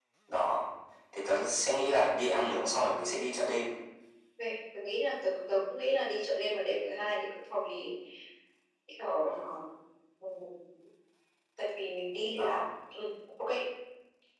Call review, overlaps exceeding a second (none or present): none